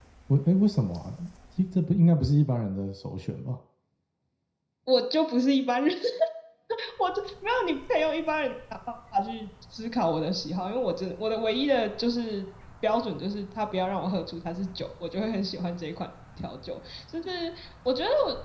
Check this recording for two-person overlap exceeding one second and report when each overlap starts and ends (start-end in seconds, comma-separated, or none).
none